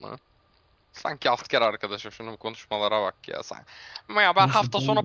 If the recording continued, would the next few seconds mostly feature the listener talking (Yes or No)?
No